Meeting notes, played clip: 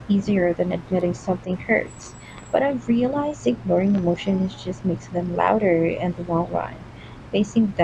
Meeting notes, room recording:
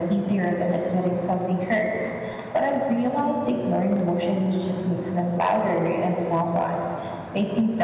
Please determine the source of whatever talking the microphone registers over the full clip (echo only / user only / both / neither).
echo only